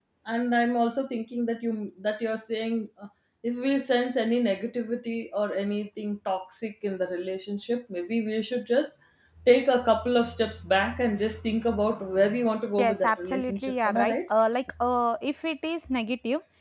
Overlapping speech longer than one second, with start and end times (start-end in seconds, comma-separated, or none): 12.8-14.1